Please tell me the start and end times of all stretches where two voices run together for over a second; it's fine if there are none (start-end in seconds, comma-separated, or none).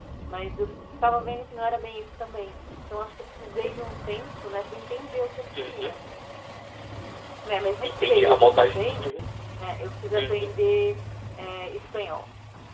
7.8-9.1